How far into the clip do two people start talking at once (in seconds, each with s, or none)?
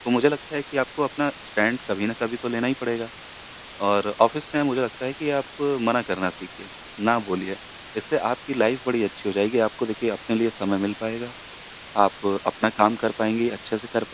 none